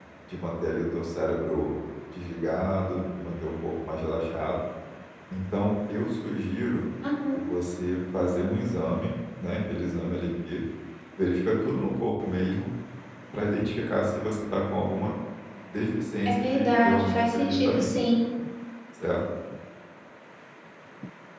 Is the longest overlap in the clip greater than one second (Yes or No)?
Yes